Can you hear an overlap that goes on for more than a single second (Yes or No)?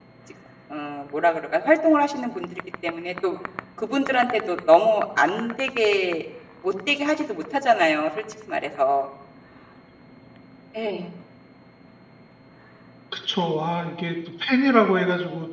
No